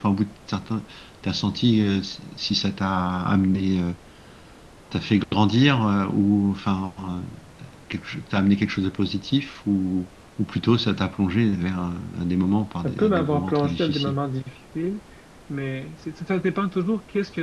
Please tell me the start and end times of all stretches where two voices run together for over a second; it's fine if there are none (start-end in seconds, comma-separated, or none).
12.8-14.2